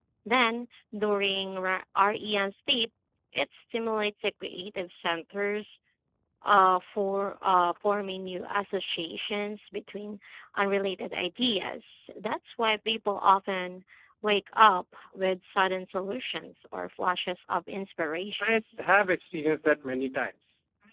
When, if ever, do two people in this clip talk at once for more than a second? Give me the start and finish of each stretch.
none

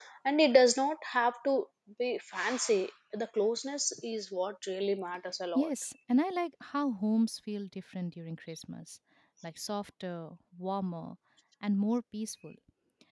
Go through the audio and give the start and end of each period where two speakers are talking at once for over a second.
none

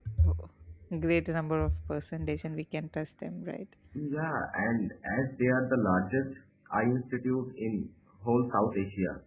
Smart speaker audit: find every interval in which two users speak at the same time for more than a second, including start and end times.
none

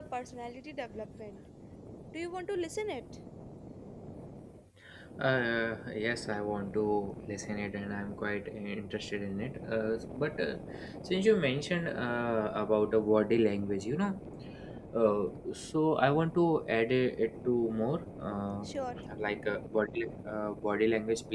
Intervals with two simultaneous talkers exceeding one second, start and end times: none

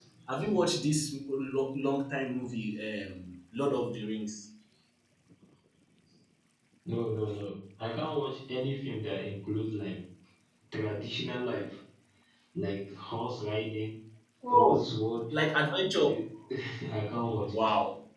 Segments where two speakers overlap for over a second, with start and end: none

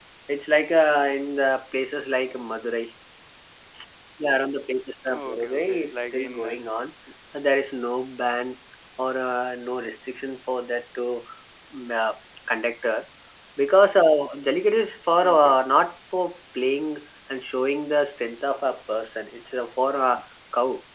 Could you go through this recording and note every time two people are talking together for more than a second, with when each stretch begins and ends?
5.1-6.5

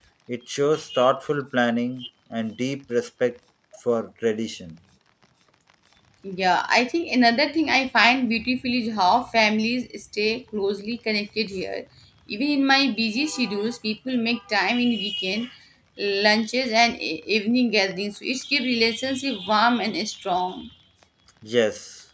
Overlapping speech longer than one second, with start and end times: none

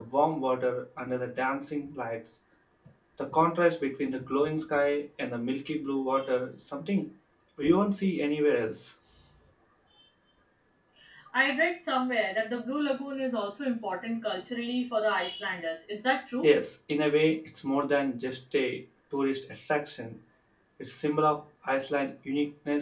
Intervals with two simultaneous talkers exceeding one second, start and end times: none

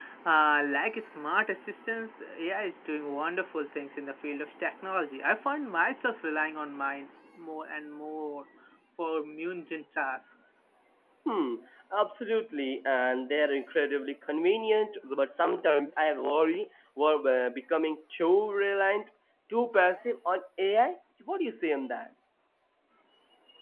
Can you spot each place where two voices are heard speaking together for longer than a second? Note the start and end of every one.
none

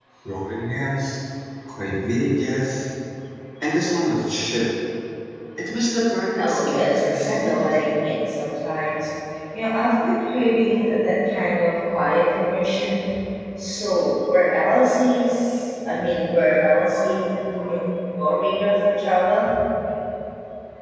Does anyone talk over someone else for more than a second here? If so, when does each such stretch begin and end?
6.4-7.8

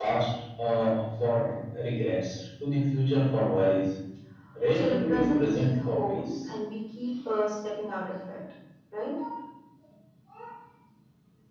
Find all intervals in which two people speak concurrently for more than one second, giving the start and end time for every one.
4.7-6.5

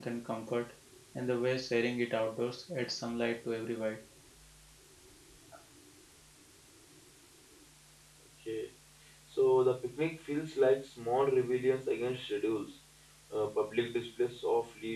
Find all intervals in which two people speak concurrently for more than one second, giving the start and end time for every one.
none

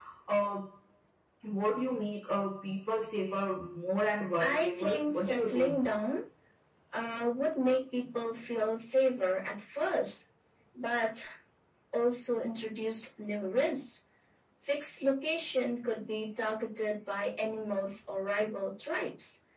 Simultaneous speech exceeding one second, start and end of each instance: 4.4-5.7

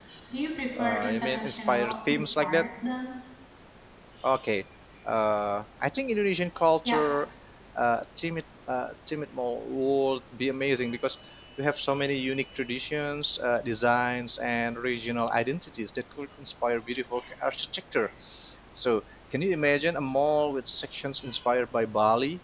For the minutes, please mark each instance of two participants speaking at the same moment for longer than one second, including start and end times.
0.8-2.7

